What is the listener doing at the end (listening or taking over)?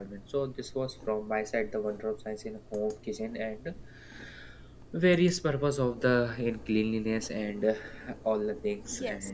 taking over